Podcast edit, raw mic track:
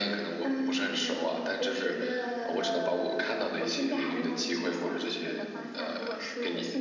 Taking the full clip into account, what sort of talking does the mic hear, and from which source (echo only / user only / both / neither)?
echo only